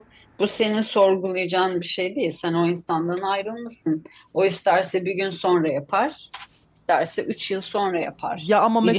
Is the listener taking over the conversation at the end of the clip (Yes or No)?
Yes